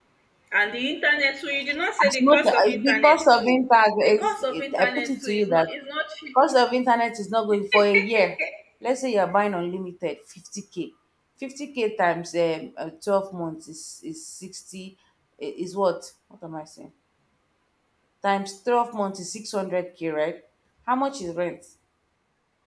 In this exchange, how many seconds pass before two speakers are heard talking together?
2 s

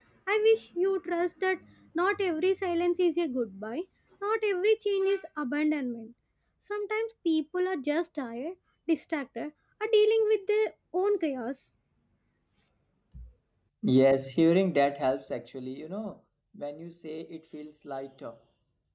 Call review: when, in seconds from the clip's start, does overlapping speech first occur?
none

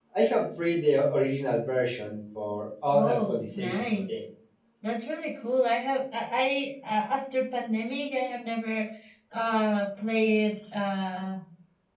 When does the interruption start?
3 s

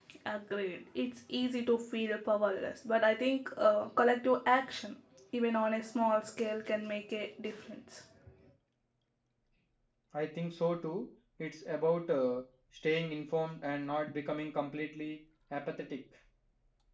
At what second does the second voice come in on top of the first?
none

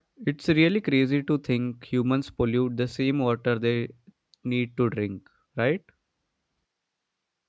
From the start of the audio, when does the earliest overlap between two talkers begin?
none

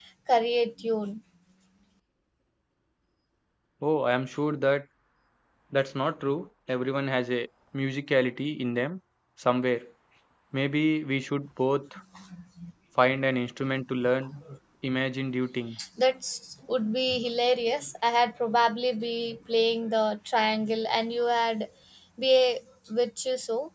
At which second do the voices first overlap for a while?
none

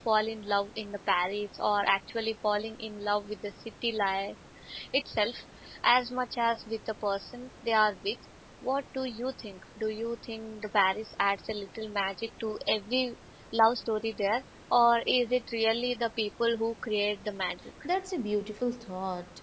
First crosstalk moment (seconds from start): none

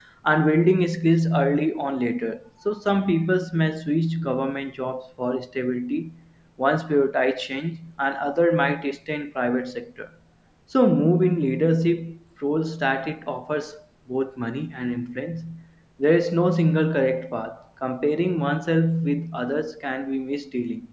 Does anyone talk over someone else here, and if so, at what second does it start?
none

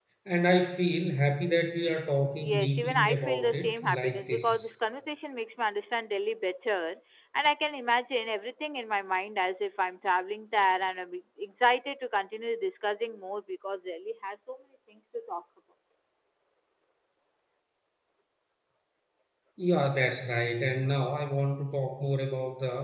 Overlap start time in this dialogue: 2 s

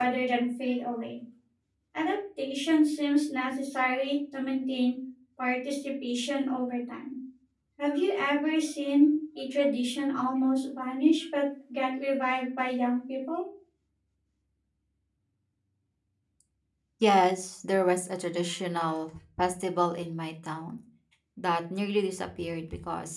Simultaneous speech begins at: none

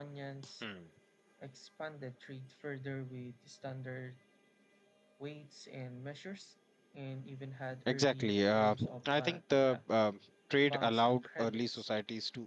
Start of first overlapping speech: 8 s

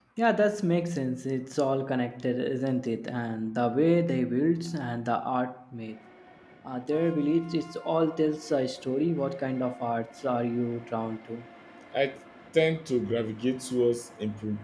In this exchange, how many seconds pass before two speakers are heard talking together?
none

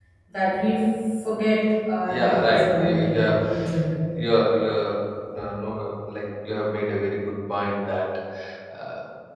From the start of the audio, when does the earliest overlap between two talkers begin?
2 s

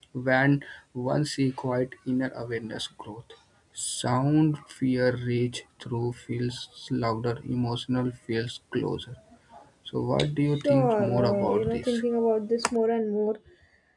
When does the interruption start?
11 s

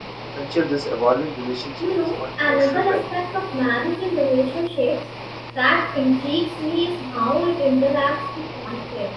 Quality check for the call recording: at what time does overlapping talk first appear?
2 s

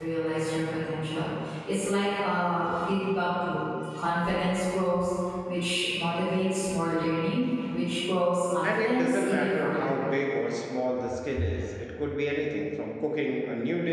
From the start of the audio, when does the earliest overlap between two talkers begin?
9 s

